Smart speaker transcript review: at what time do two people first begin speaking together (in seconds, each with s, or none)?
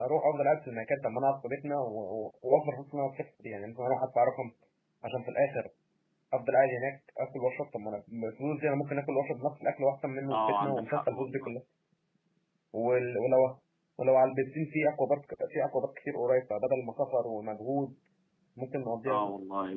10.3 s